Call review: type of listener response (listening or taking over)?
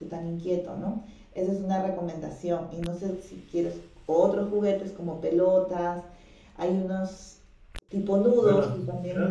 taking over